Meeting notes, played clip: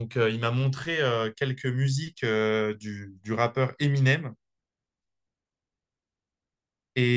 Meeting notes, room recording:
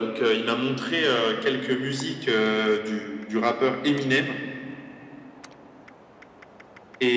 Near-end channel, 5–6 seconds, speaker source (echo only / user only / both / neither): neither